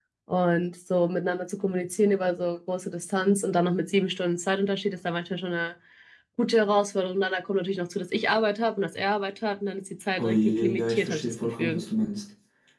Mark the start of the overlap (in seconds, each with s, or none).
10.2 s